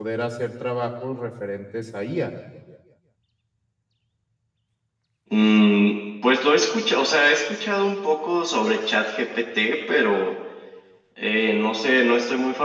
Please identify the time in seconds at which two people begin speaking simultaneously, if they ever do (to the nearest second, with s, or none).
none